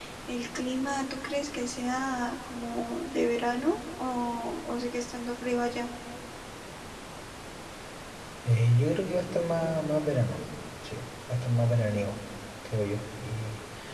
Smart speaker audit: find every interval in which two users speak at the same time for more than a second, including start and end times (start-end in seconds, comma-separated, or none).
none